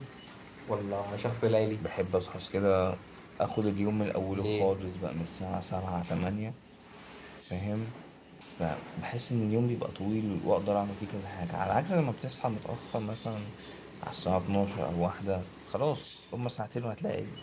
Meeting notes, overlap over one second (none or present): none